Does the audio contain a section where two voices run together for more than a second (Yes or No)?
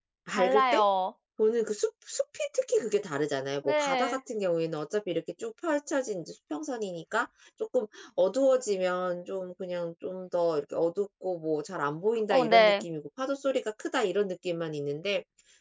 No